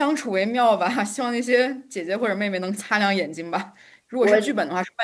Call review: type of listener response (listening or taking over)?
listening